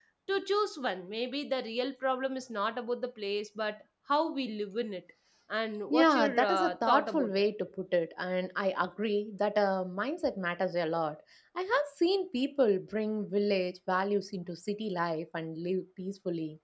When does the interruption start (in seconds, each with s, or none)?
5.9 s